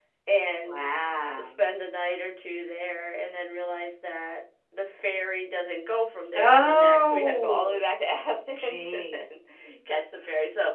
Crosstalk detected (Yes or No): Yes